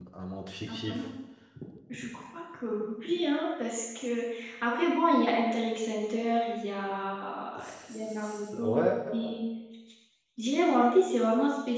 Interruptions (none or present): present